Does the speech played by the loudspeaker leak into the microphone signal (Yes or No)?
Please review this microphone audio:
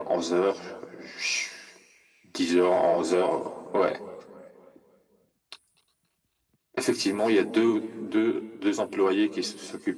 Yes